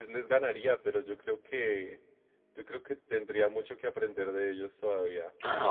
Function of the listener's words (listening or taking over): taking over